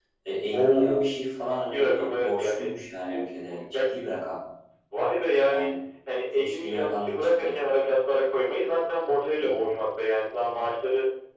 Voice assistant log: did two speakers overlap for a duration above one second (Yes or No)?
Yes